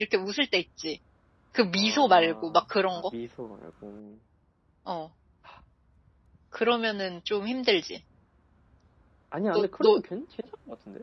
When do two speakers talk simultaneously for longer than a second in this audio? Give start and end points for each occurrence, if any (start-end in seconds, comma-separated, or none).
1.7-3.1